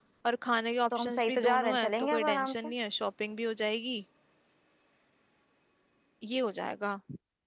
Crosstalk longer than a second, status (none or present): present